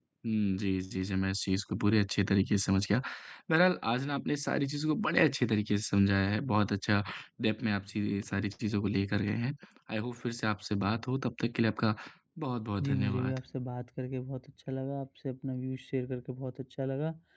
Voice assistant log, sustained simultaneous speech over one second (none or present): none